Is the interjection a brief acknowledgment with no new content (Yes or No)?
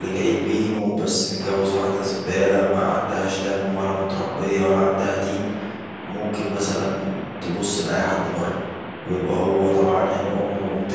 Yes